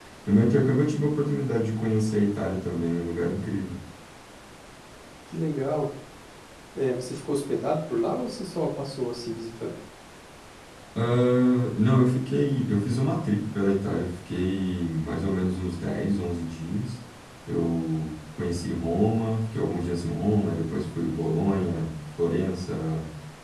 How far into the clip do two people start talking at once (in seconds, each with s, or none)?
none